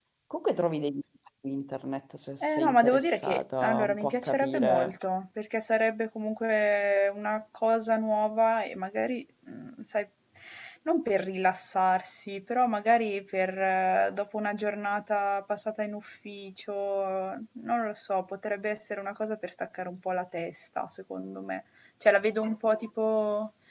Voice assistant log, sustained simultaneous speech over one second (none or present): present